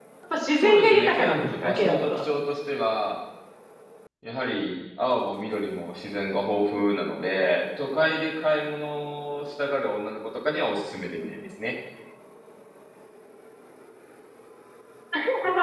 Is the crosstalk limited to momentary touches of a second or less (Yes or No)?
No